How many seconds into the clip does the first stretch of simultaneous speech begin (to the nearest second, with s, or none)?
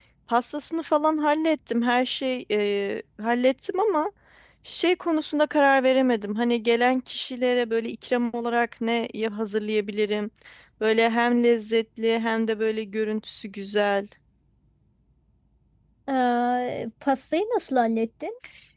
none